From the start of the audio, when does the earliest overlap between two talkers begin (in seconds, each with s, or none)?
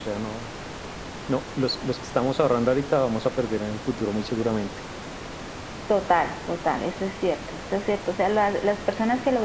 none